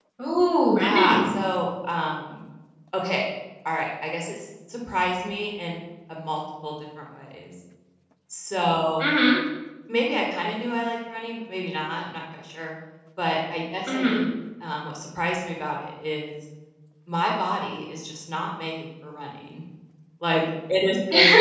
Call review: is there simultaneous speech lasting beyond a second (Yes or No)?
No